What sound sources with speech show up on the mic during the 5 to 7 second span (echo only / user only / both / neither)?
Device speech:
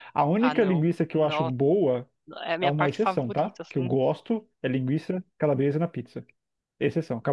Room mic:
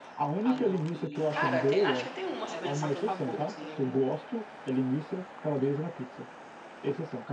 echo only